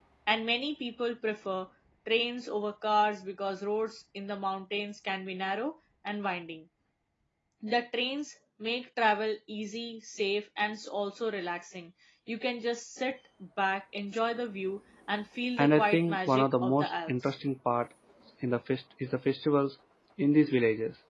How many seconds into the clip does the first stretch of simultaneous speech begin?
16 s

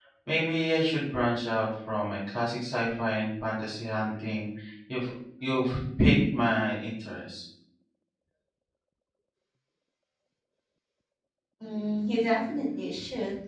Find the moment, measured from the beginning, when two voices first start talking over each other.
none

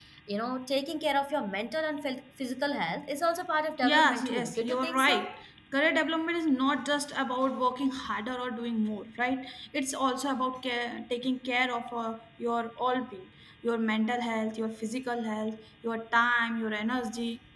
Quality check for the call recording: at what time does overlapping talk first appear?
4 s

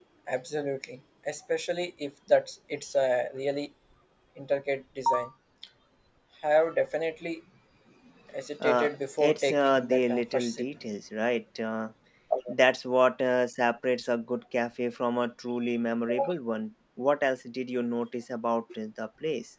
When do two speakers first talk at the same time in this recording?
9 s

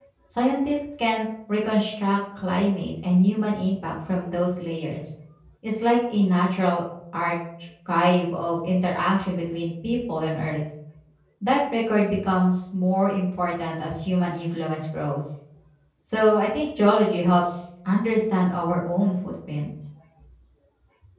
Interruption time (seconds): none

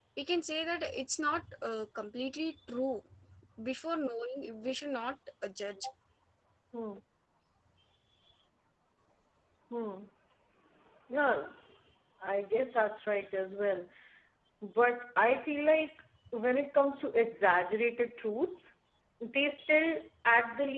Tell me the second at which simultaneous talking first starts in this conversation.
none

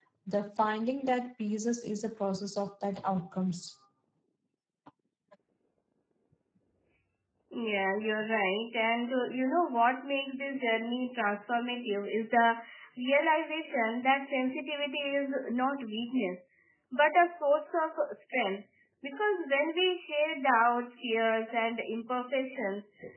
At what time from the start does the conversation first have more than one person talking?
none

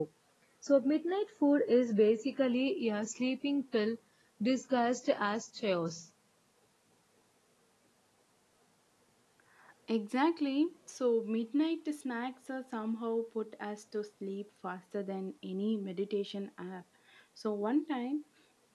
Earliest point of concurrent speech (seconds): none

